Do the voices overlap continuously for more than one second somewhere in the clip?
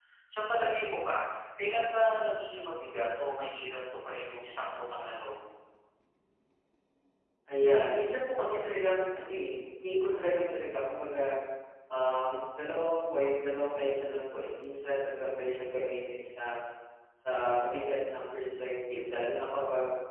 No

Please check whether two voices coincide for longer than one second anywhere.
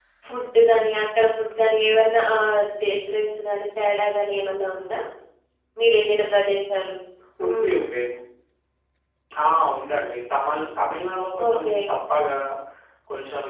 No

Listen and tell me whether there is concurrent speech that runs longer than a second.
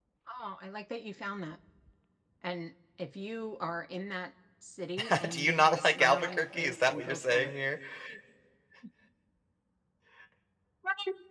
Yes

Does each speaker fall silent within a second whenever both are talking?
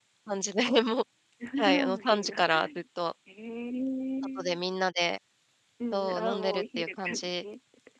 No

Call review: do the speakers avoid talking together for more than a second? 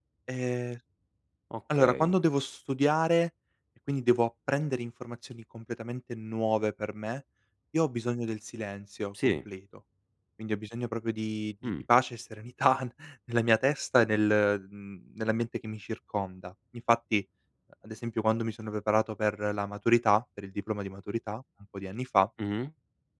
Yes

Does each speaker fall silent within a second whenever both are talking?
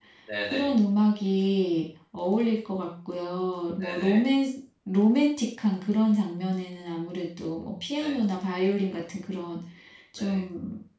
Yes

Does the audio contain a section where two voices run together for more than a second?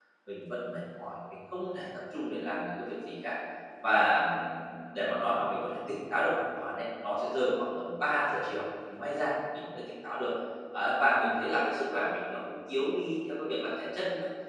No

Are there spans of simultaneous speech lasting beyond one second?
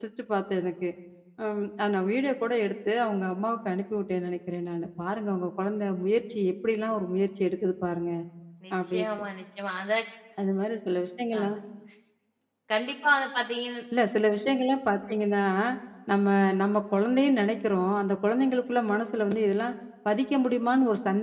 No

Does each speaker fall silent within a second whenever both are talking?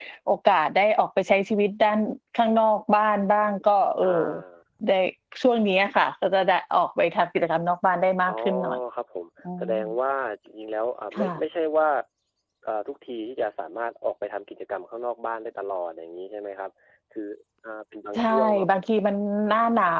Yes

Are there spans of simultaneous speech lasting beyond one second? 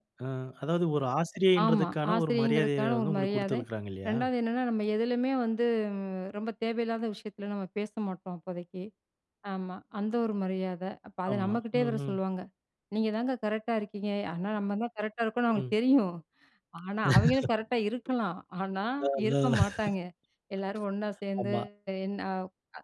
Yes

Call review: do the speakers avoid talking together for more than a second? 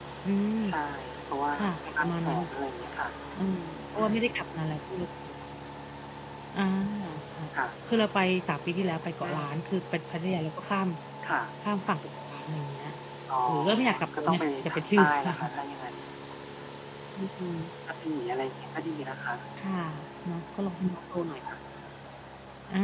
No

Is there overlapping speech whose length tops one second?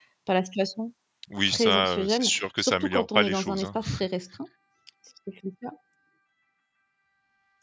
Yes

